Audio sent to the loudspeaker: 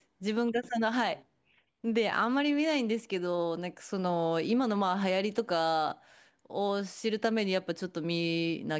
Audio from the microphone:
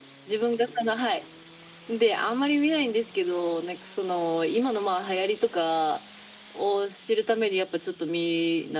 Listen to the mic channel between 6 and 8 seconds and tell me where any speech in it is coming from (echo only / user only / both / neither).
echo only